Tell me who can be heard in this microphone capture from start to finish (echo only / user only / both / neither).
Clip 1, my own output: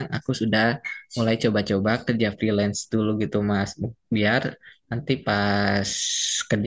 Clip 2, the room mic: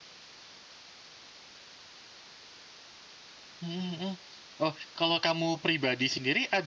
user only